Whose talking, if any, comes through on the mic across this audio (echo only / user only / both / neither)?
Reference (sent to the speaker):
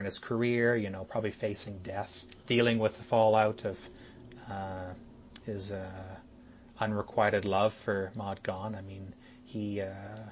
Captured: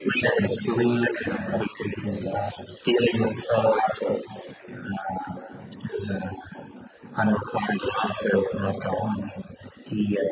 echo only